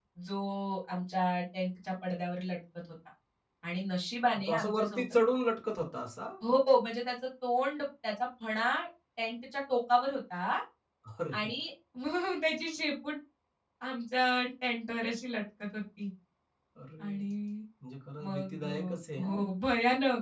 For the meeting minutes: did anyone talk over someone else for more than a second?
Yes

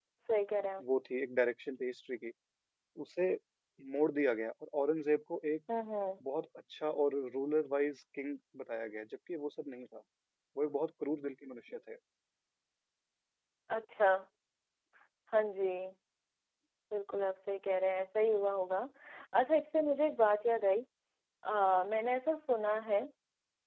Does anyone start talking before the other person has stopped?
No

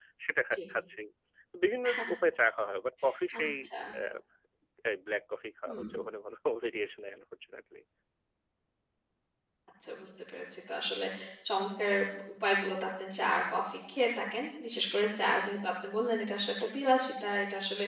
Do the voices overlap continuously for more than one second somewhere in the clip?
No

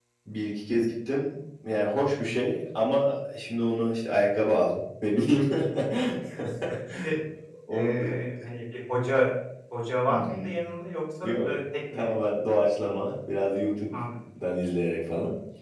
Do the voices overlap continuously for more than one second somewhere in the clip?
No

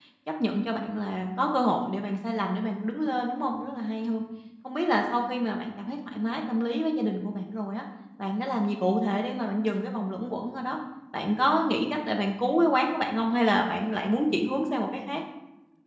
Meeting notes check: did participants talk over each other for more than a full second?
No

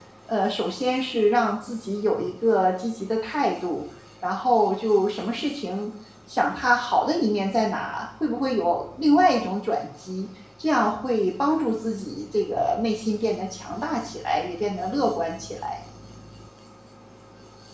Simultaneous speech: No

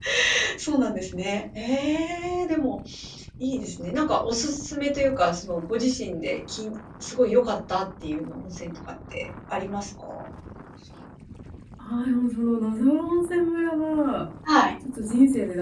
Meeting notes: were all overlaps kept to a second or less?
Yes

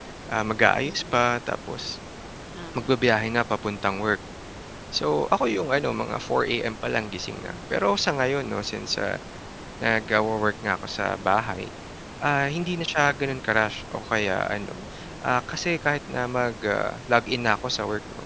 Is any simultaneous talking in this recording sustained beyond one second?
No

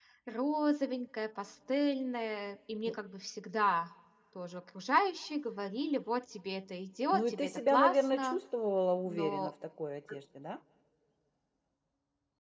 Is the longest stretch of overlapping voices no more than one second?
No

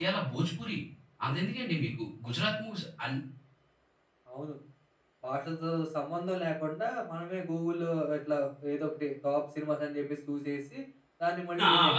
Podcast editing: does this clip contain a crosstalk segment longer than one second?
No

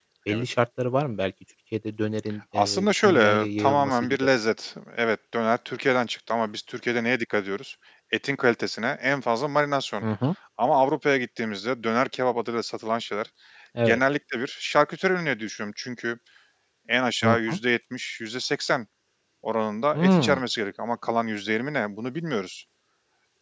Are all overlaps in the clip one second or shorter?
No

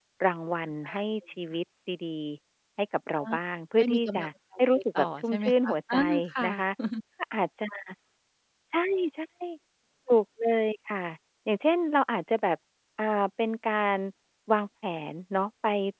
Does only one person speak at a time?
No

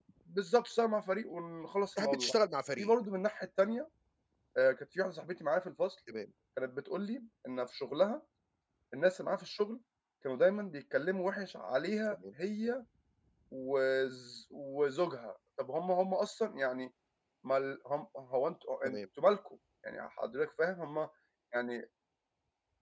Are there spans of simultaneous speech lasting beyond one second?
No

